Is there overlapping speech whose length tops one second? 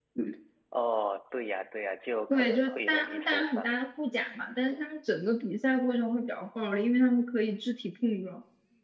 Yes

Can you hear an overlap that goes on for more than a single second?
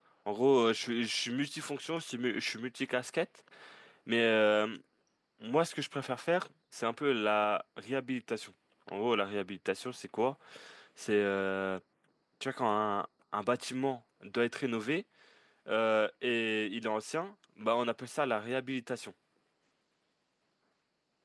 No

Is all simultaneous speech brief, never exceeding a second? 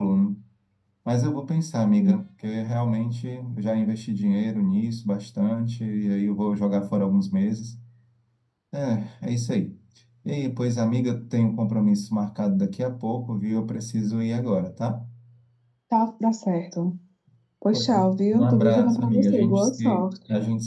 No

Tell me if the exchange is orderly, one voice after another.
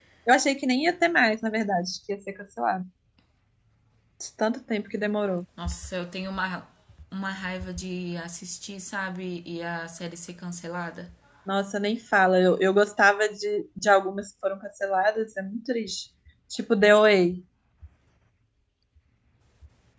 Yes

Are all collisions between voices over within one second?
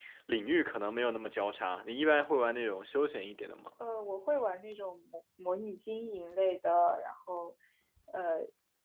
Yes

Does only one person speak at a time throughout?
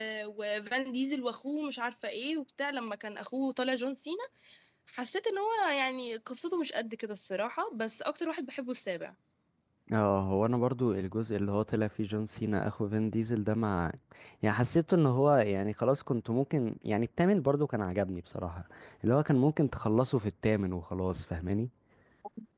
Yes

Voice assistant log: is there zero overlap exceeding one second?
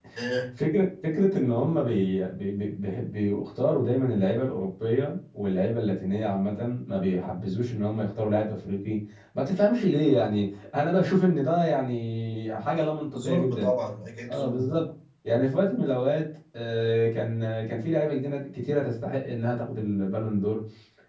Yes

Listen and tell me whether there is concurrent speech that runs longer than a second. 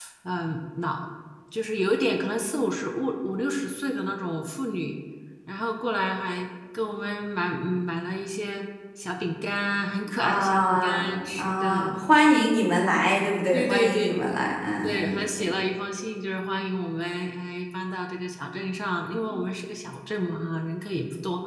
Yes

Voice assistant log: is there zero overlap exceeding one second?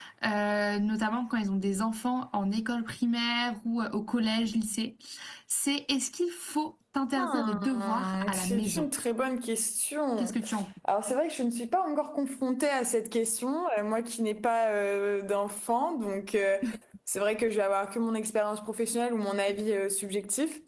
No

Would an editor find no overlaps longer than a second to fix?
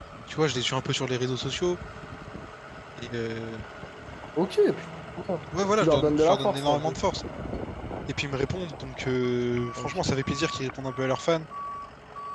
No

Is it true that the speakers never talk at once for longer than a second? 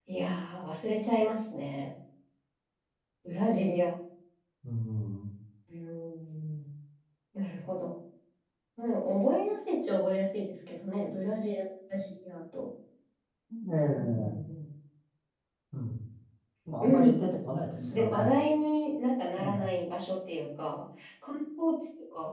Yes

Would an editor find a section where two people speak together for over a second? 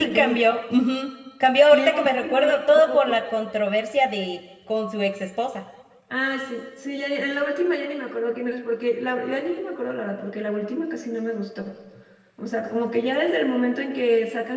Yes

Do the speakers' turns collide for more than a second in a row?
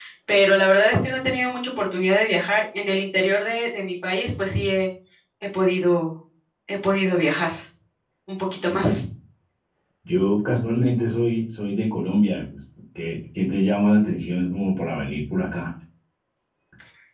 No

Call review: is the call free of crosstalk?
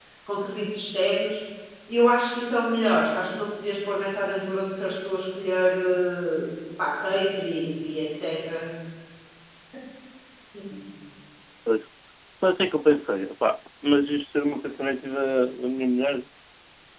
Yes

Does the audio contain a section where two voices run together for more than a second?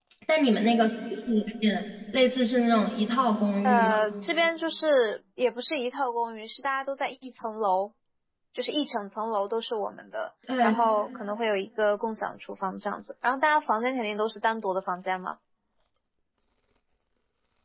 No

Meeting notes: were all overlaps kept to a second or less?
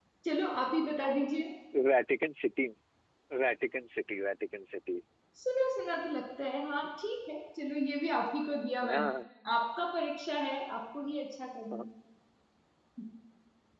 Yes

